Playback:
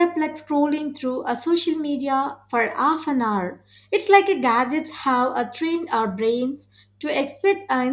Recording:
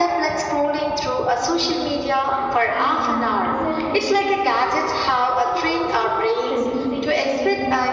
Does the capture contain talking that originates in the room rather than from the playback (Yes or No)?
Yes